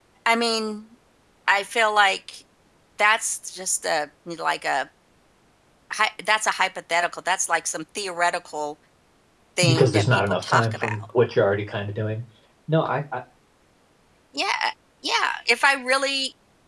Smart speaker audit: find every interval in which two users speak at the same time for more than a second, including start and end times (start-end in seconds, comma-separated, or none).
9.7-11.0